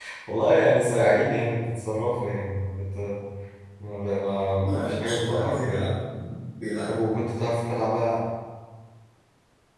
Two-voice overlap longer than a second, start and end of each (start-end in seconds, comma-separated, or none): 4.6-5.9